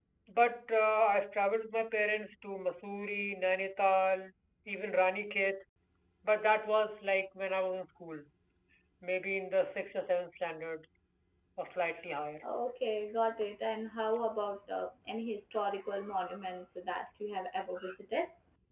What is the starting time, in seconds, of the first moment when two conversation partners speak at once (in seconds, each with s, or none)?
none